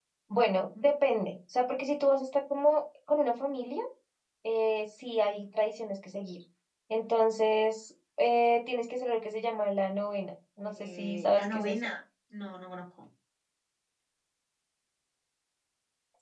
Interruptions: present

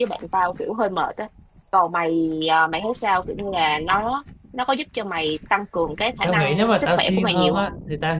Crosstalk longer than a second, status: present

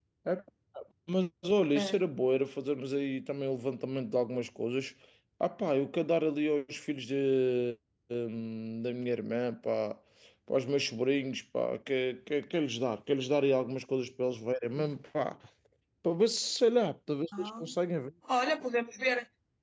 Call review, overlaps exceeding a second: none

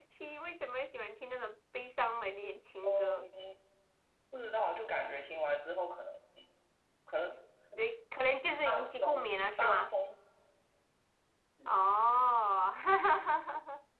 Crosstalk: present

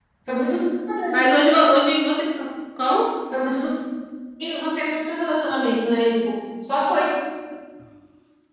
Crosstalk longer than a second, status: none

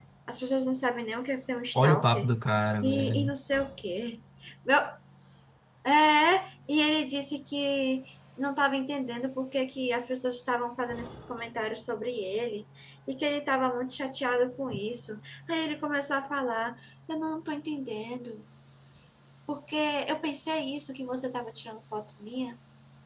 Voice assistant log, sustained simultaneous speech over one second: none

